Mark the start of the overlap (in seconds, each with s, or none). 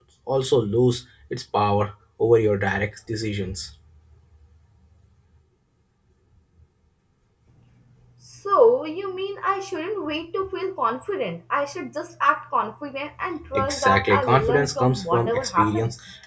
13.5 s